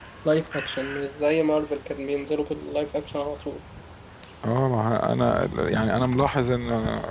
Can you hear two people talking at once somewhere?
No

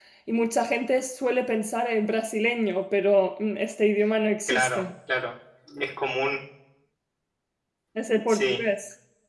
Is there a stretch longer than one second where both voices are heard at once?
No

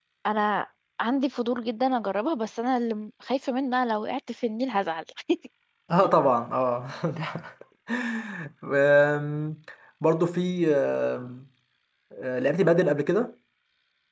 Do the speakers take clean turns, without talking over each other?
Yes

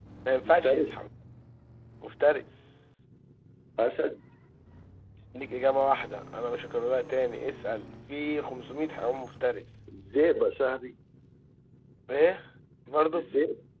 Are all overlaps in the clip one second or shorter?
Yes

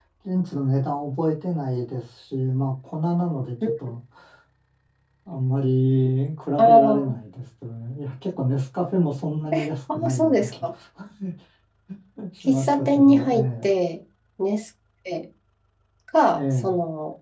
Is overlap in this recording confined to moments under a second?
No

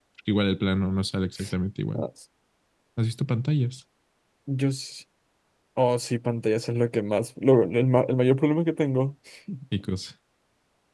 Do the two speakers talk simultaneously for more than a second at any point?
No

